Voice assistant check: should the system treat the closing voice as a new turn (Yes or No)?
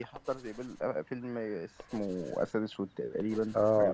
Yes